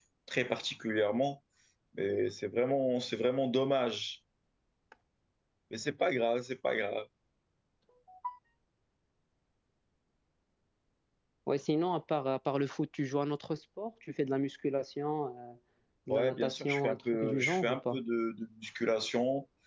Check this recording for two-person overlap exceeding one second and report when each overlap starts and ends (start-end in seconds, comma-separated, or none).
16.1-18.0